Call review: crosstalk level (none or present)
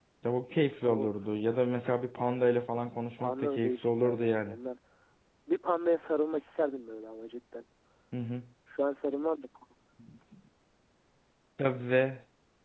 present